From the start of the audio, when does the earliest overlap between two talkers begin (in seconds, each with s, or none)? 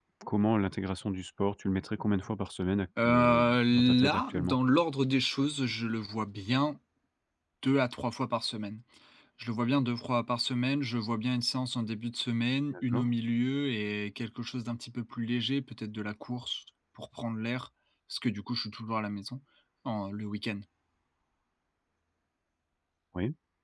3.0 s